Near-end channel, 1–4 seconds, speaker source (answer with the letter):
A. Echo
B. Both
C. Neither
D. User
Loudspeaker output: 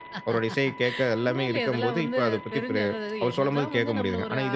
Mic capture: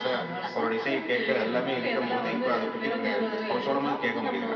B